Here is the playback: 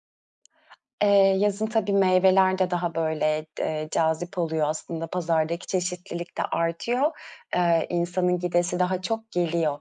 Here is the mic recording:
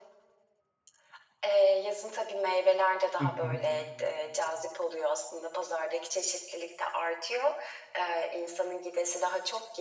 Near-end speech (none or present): present